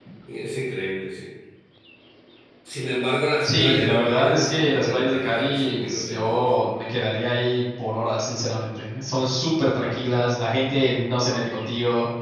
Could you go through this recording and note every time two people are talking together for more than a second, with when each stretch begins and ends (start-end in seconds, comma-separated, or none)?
3.4-6.5